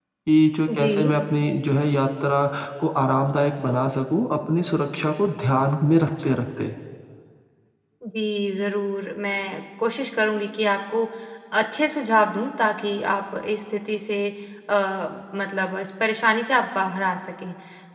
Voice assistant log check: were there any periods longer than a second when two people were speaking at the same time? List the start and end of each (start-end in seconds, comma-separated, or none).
none